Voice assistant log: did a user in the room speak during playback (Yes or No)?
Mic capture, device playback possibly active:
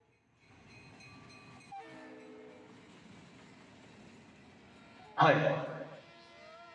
Yes